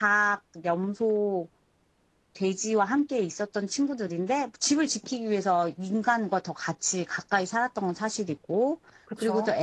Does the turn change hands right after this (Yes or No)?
No